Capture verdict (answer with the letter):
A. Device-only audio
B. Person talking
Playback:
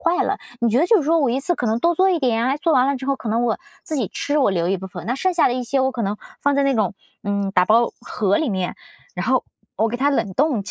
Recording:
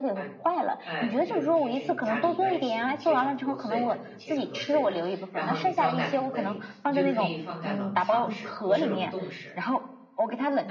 B